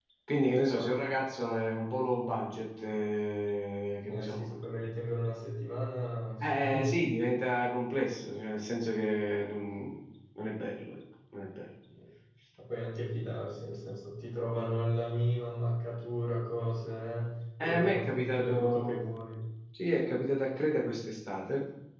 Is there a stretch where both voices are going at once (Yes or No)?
Yes